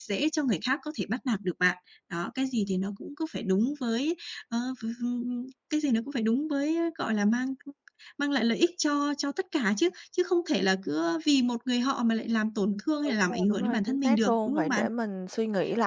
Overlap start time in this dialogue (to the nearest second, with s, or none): 13 s